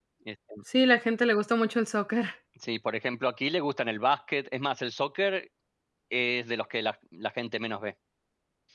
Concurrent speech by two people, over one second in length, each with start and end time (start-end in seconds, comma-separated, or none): none